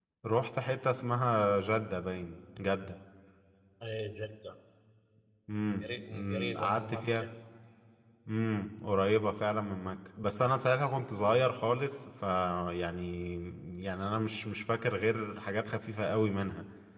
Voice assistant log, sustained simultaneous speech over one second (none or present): present